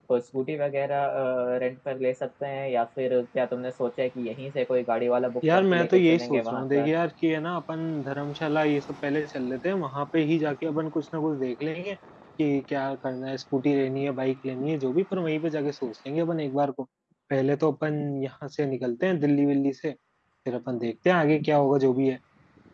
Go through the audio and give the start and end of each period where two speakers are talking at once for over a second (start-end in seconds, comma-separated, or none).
5.5-6.9